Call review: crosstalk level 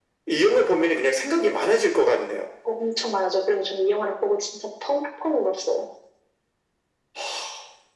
none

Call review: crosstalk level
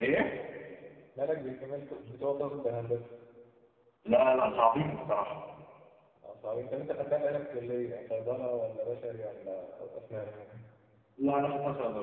none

